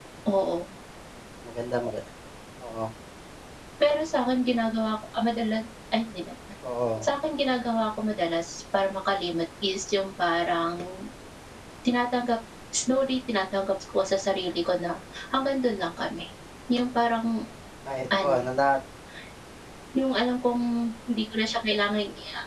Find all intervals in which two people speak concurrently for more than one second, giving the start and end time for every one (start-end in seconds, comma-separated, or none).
none